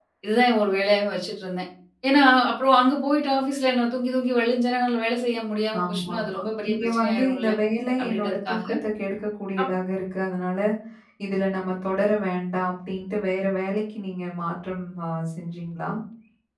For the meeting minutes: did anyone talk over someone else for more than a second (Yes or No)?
Yes